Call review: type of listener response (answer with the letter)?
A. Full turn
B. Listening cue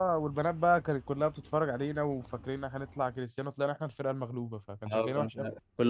A